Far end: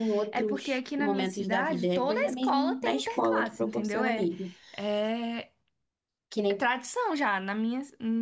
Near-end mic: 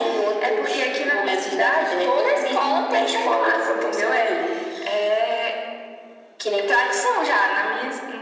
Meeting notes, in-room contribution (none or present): none